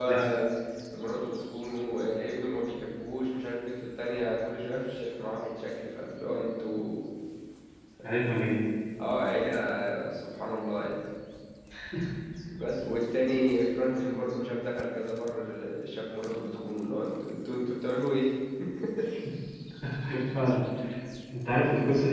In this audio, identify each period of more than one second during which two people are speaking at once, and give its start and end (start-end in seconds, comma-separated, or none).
none